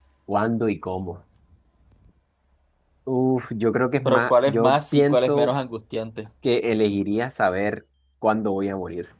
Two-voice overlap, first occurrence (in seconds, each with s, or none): 4.0 s